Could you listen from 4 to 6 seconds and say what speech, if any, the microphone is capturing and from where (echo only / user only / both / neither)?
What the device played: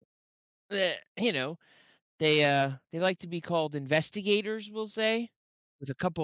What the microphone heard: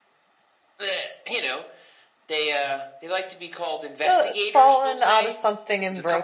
both